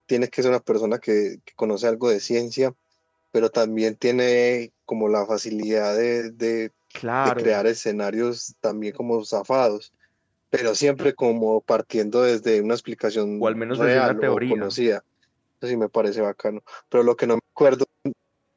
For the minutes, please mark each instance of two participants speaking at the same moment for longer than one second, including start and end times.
13.4-14.8

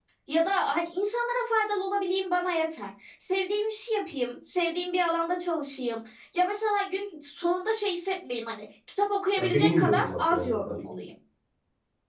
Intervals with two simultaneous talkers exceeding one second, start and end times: 9.4-10.8

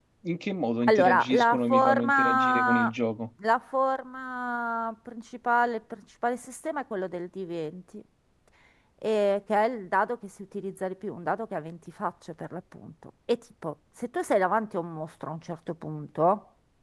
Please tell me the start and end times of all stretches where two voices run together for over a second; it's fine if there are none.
0.9-2.9

